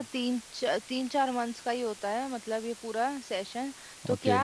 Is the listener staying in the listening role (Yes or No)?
Yes